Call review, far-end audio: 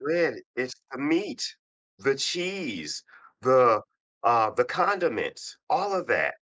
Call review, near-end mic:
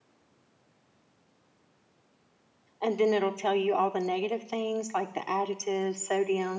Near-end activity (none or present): present